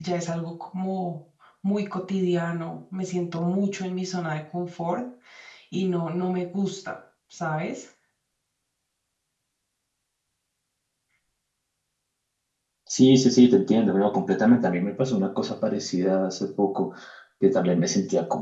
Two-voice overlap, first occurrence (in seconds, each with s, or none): none